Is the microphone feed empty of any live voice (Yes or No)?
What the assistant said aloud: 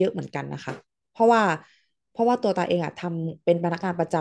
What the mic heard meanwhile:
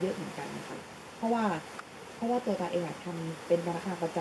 Yes